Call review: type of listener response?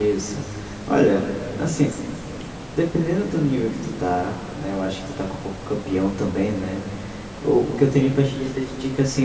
listening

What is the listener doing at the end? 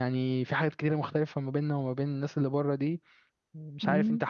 taking over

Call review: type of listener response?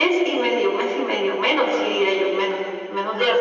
taking over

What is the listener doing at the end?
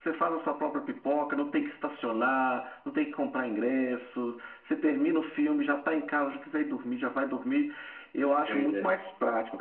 listening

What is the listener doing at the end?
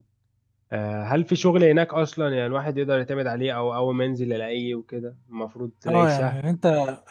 taking over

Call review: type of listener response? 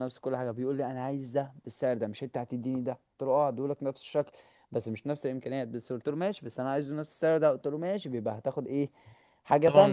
taking over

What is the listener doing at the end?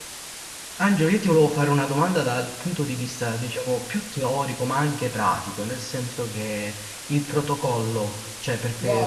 taking over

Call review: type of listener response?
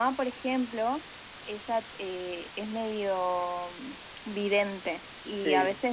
listening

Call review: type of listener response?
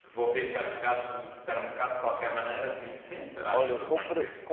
taking over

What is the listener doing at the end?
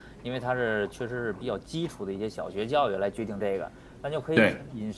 listening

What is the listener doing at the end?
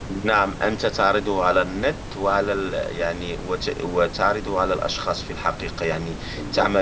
listening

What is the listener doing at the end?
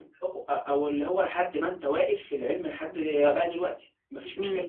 taking over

